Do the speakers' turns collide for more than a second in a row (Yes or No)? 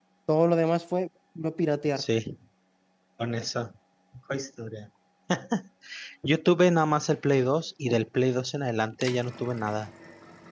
No